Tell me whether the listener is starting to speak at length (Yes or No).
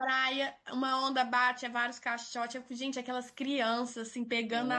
No